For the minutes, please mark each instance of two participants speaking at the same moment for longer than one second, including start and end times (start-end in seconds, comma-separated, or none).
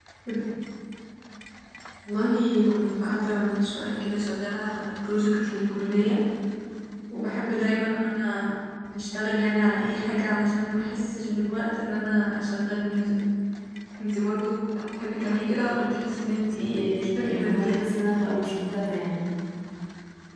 16.5-17.9